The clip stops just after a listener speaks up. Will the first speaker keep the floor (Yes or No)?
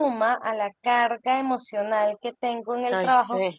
Yes